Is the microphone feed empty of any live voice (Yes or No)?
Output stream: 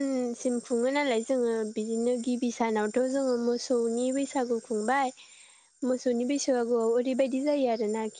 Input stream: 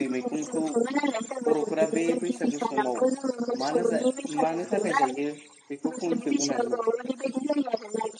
No